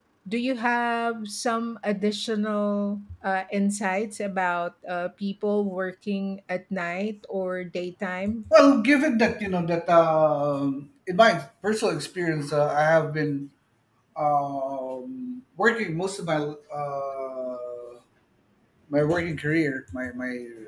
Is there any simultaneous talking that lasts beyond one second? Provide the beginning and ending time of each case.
none

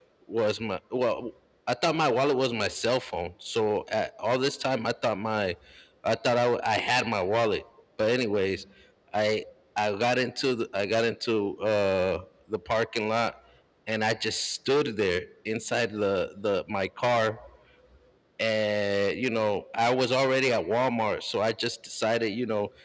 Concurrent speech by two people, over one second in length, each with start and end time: none

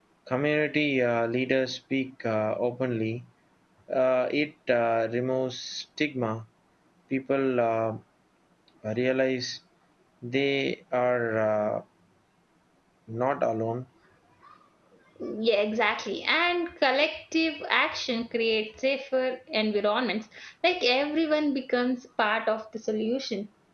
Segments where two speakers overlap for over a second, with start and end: none

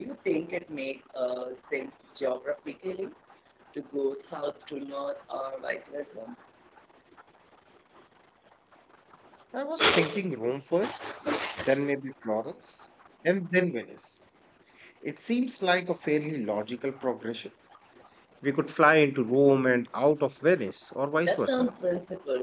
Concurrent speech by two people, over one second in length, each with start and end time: none

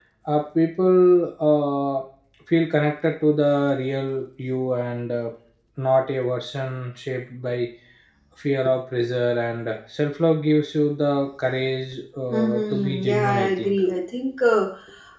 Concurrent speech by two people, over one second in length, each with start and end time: 12.3-13.8

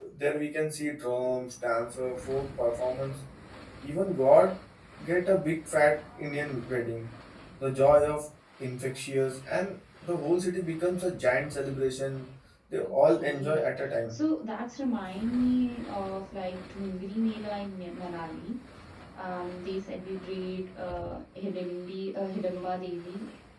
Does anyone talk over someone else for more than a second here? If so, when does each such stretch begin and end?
12.8-14.1

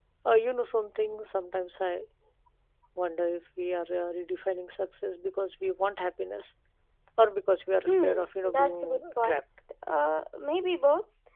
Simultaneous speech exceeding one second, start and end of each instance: 7.9-9.4

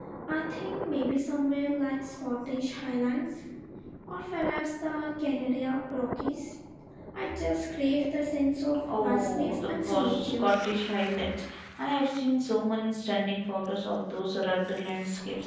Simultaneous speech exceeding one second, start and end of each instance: 8.9-10.5

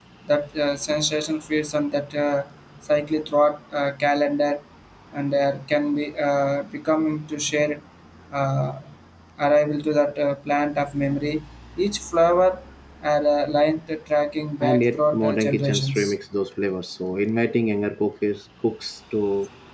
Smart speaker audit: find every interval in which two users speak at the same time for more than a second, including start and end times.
14.6-16.1

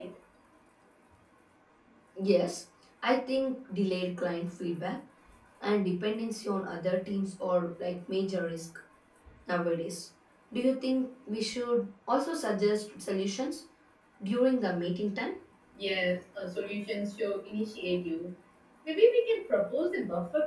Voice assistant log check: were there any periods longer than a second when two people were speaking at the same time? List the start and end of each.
none

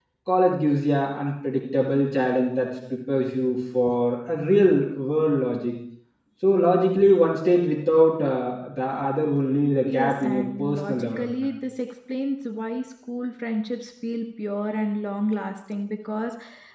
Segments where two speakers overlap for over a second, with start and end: 9.9-11.5

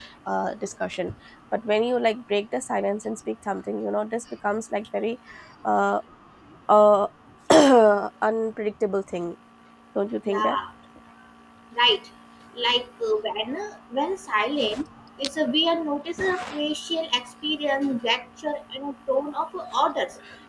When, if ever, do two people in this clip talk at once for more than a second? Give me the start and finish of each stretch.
none

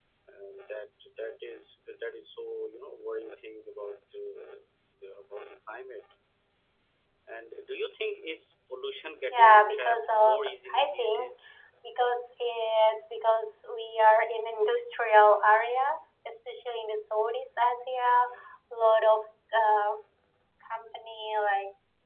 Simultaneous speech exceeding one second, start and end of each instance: 9.3-11.3

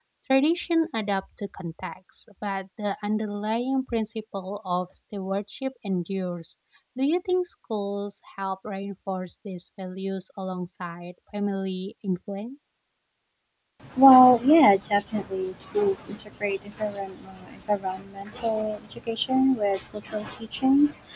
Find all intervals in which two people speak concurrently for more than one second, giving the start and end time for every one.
none

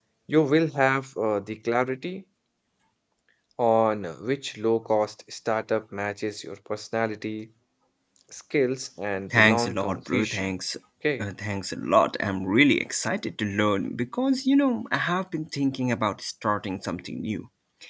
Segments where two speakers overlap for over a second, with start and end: 9.3-10.5

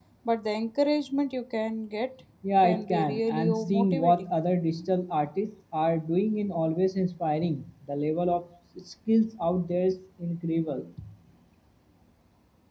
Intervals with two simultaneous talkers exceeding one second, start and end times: 2.6-4.3

